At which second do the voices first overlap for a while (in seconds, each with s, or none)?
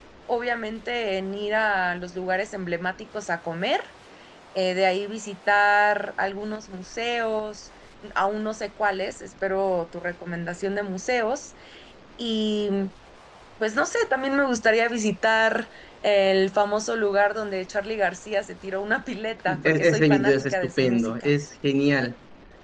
19.5 s